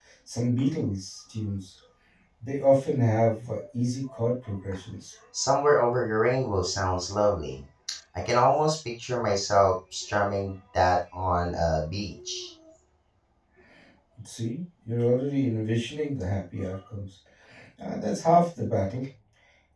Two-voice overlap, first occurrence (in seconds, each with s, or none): none